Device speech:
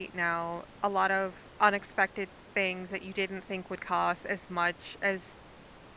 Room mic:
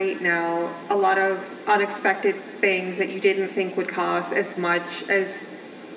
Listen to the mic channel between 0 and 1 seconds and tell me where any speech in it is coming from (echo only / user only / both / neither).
echo only